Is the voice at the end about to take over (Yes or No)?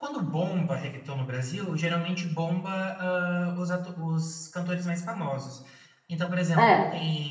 No